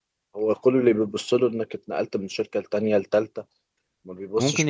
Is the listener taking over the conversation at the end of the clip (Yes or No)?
Yes